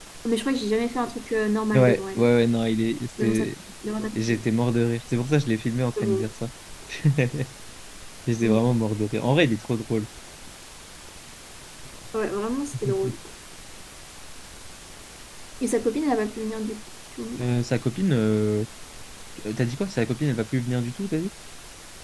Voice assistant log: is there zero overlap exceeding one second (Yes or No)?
Yes